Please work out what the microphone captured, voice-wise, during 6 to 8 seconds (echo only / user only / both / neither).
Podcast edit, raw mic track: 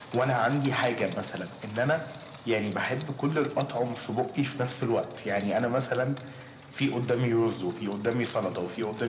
echo only